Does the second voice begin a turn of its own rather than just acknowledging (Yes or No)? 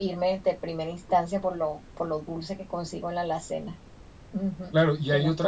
Yes